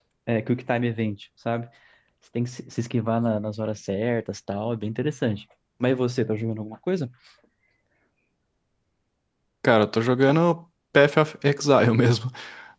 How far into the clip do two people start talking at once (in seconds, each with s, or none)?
none